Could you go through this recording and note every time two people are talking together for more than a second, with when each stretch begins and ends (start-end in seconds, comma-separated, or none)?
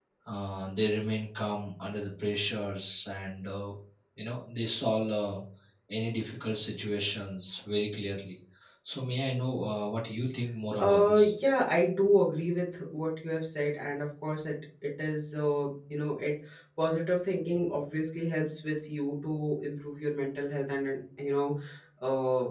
none